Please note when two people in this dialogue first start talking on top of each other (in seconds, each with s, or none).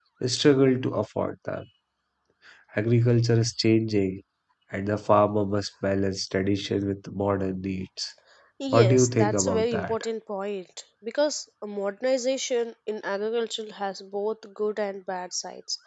8.7 s